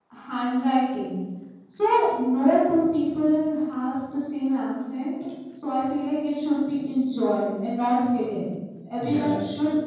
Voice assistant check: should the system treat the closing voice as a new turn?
No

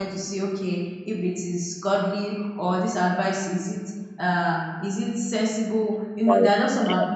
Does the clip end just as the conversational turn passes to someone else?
No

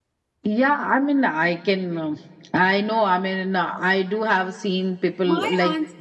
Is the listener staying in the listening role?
No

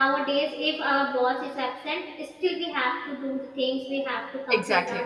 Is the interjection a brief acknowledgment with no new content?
Yes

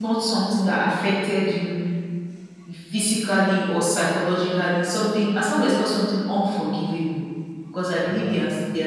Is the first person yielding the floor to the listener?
No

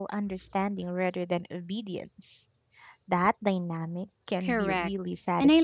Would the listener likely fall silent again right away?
No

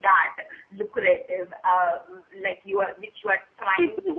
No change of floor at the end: No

